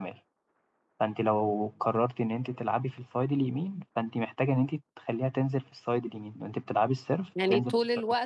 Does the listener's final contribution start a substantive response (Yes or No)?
Yes